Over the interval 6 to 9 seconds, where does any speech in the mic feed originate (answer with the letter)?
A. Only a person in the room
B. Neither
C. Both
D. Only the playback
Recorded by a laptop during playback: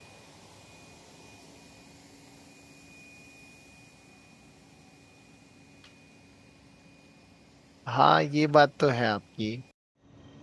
A